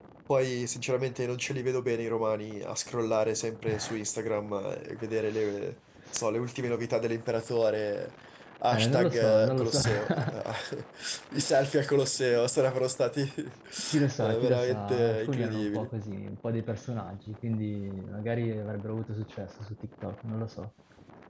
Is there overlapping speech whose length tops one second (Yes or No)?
Yes